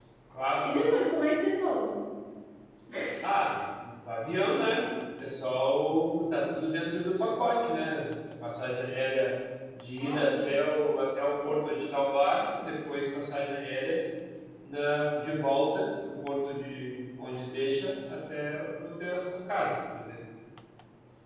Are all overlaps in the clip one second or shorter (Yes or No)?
Yes